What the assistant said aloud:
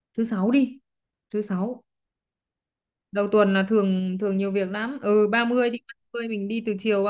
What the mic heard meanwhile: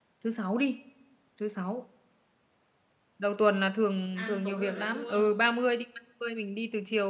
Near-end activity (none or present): present